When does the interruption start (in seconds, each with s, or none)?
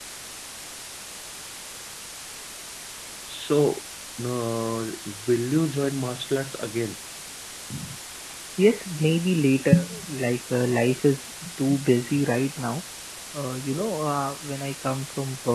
none